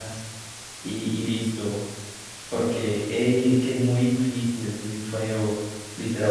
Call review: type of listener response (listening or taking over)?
listening